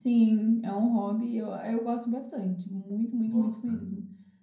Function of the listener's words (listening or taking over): listening